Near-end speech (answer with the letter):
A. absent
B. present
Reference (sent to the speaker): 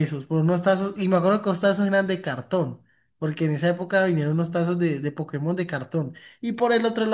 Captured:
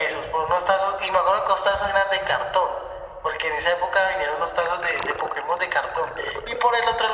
A